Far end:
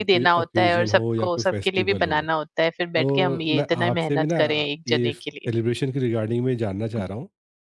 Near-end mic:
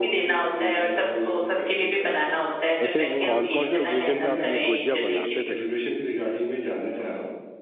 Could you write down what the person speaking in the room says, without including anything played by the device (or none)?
वैसे कौन-कौन से ओकेज़न पे आप ये गुजिया बनाते थे वैसे?